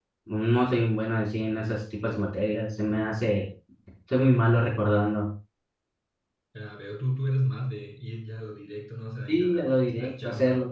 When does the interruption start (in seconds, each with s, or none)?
9.3 s